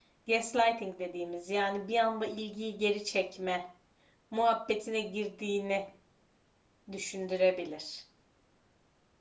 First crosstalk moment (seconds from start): none

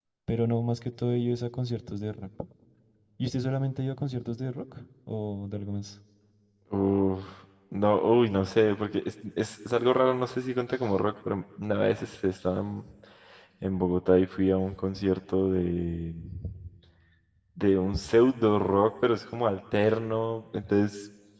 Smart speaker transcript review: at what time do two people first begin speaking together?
none

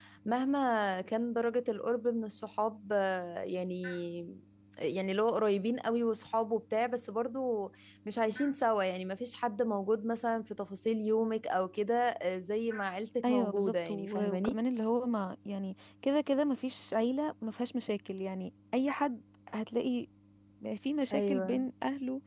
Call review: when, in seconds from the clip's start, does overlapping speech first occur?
13 s

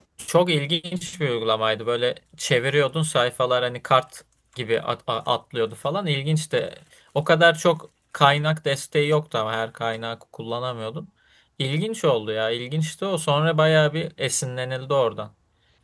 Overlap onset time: none

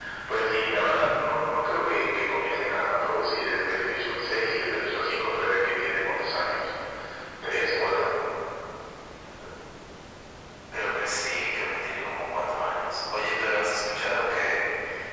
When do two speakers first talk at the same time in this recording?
none

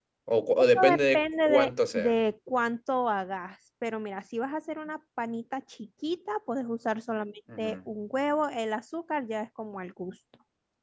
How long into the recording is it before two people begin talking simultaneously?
1 s

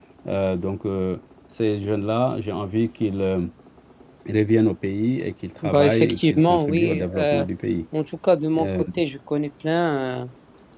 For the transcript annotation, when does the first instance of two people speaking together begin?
6 s

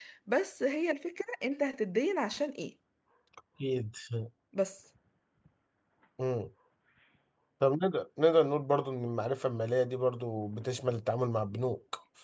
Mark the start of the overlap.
none

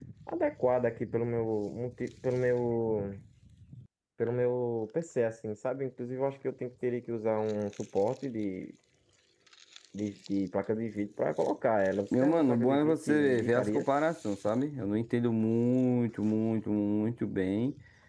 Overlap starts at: 12 s

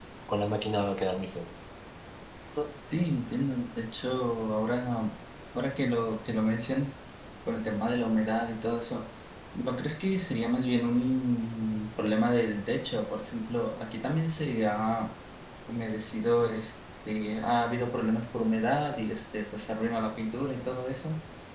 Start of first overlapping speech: none

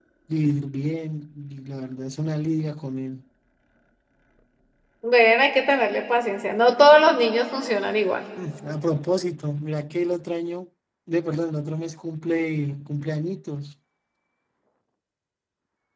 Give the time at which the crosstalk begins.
none

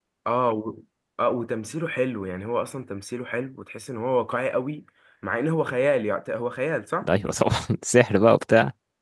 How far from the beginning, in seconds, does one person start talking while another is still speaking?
none

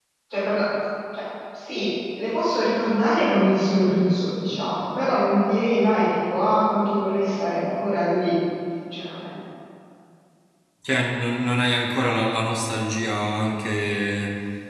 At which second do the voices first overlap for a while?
none

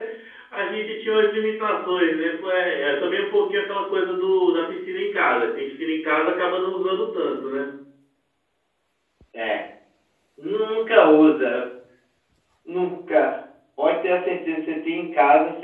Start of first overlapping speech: none

